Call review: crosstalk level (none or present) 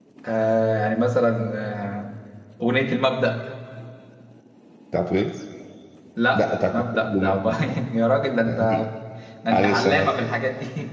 present